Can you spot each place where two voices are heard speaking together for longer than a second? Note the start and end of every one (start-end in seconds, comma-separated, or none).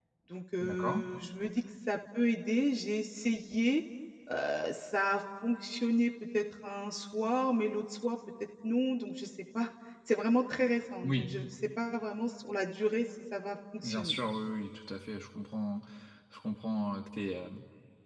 none